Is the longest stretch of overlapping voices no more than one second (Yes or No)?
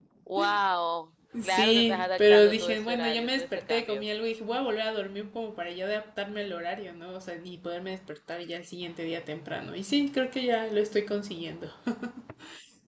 No